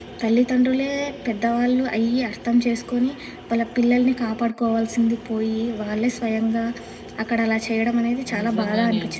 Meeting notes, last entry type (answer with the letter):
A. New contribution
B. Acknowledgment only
A